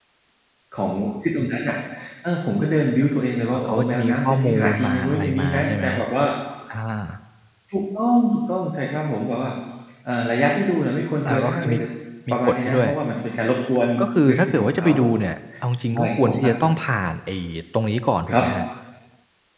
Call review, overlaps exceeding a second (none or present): present